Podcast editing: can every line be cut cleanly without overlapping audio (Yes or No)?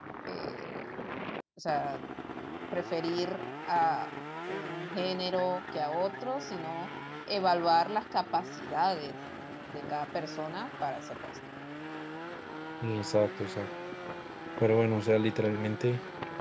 Yes